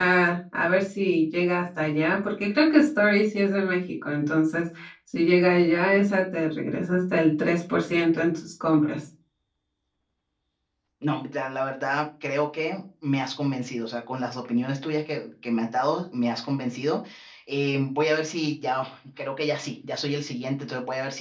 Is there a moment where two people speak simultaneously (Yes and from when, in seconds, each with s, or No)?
No